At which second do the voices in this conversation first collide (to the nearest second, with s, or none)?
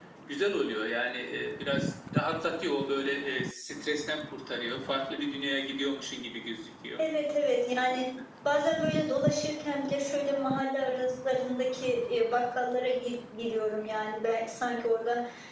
none